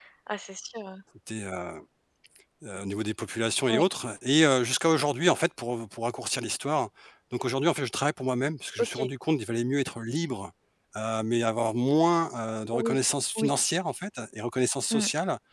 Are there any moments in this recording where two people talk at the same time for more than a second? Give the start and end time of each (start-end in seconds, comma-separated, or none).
none